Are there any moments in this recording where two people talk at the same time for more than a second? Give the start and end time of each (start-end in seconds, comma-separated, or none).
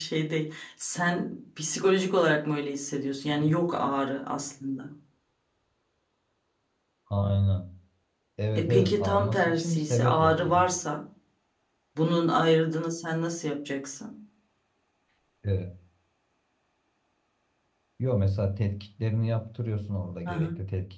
8.6-10.7